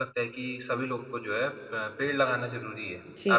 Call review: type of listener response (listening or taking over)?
taking over